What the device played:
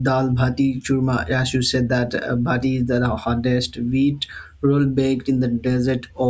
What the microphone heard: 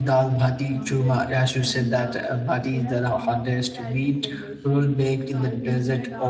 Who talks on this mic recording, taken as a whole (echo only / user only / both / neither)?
both